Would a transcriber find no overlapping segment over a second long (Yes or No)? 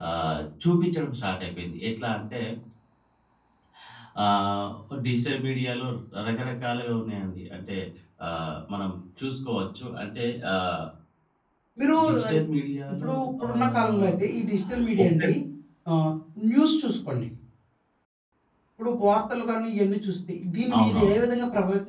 No